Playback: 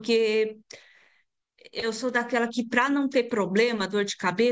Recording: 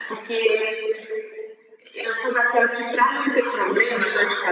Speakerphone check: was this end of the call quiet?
Yes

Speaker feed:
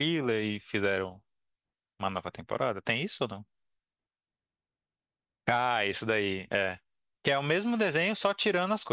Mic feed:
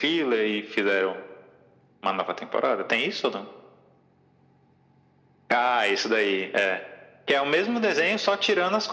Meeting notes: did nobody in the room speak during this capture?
Yes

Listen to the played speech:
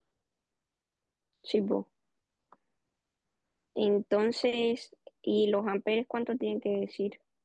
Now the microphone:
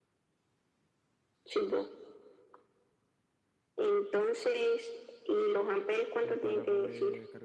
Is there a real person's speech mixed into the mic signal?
Yes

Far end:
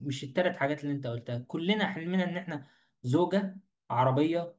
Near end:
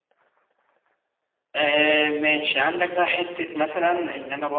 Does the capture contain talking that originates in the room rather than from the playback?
Yes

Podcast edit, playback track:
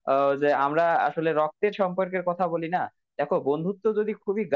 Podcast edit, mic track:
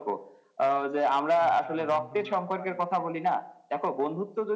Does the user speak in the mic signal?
Yes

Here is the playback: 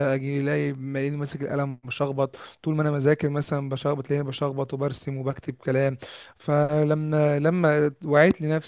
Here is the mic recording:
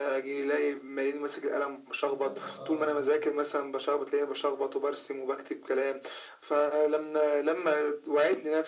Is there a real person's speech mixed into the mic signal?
Yes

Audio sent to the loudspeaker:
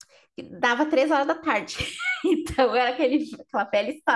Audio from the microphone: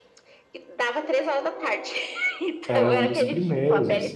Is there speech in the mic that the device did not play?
Yes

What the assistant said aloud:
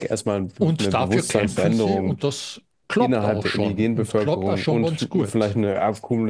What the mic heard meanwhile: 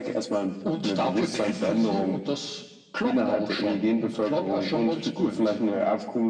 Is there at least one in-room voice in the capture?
No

